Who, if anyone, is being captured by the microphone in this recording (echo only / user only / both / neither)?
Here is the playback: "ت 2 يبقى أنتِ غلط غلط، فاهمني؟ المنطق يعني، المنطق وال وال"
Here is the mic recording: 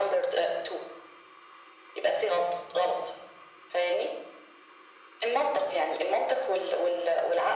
echo only